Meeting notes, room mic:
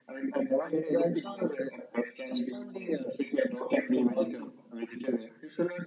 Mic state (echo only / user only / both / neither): echo only